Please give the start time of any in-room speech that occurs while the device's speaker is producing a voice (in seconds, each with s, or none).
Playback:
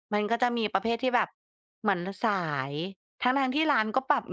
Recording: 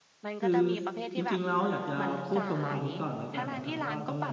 0.4 s